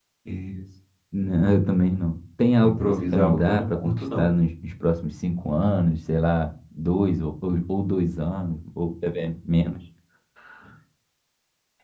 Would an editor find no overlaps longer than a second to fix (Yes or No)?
No